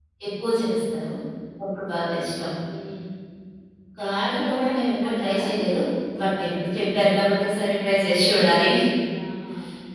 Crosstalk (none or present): present